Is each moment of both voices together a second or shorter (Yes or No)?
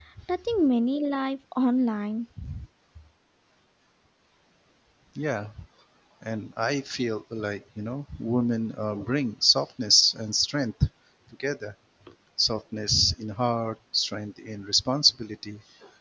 Yes